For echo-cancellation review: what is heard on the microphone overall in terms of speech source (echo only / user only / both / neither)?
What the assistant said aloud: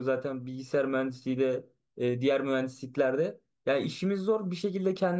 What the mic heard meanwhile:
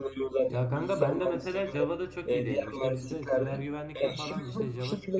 both